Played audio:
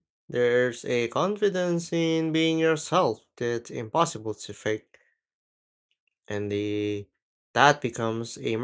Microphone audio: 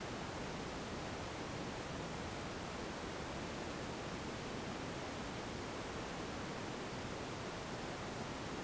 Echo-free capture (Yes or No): Yes